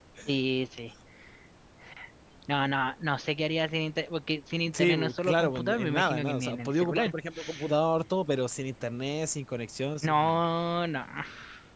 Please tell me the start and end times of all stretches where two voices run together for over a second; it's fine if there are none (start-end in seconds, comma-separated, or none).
4.7-7.1